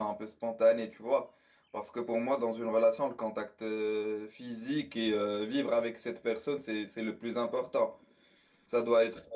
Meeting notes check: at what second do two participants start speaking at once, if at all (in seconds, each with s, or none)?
none